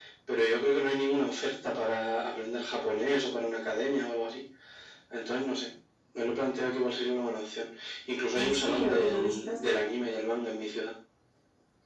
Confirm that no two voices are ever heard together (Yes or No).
No